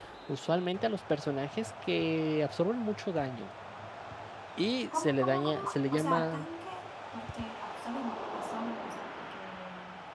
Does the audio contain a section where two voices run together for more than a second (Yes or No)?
Yes